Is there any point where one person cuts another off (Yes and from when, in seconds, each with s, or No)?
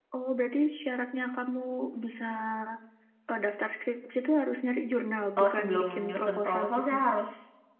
Yes, from 5.4 s